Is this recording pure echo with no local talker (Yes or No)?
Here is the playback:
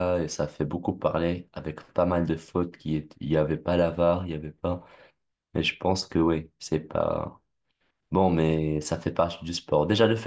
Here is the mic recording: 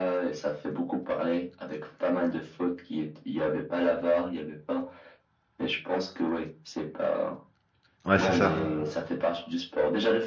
No